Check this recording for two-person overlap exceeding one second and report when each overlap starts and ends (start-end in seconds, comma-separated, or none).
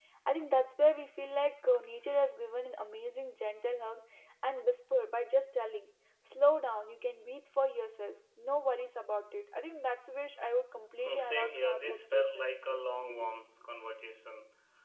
11.0-12.5